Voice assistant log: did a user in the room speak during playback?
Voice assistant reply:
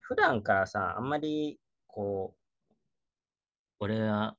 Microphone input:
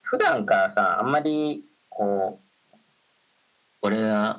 No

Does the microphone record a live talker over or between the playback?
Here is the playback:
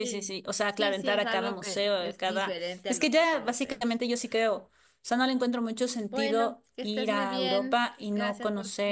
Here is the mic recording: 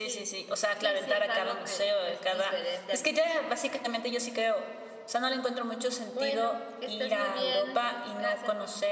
No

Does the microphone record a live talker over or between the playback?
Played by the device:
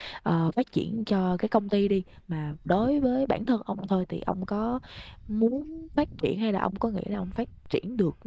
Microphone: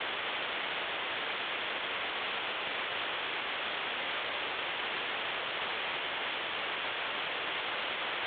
No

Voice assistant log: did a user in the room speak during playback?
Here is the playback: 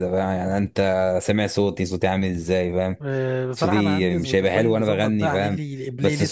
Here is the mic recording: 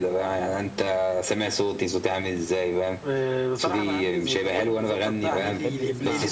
Yes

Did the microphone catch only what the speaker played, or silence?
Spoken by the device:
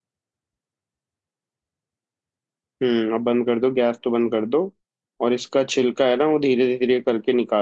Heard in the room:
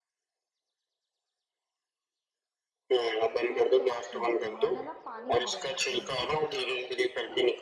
No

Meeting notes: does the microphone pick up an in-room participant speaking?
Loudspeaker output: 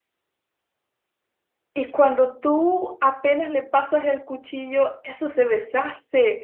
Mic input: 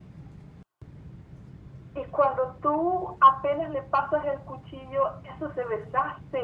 No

